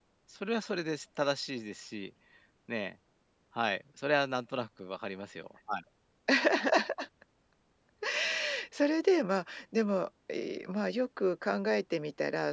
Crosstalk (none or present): none